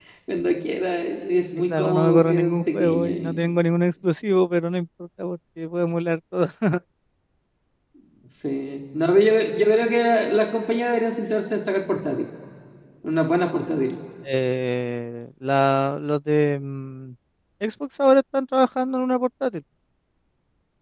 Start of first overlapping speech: 1.7 s

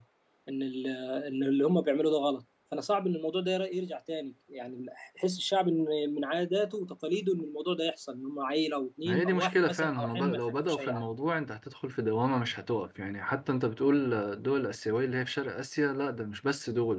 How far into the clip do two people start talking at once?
9.1 s

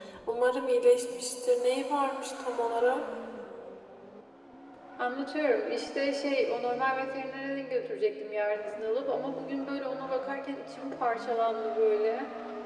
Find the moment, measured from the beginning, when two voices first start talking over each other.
none

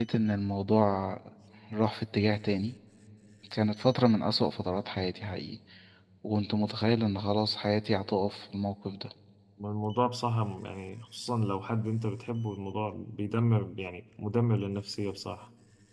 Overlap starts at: none

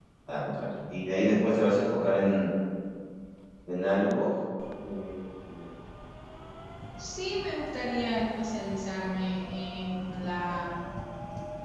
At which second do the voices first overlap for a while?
none

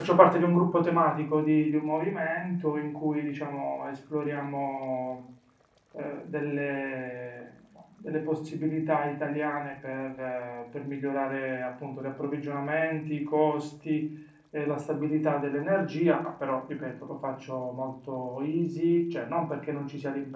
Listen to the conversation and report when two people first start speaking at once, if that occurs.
none

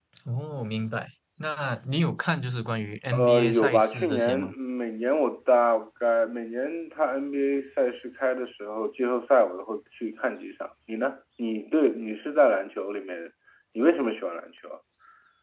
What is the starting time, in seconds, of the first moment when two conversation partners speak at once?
3.1 s

